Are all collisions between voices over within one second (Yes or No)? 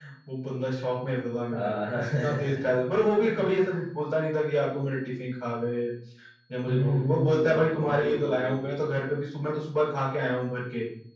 No